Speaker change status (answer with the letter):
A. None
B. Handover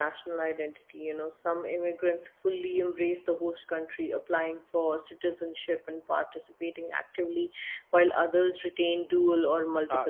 B